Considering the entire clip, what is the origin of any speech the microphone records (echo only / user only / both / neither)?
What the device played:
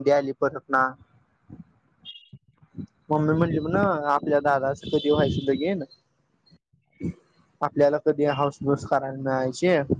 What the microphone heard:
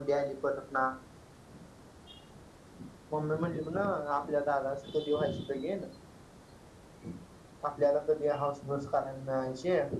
echo only